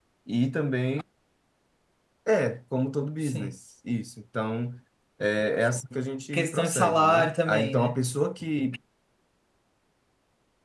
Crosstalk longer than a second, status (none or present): present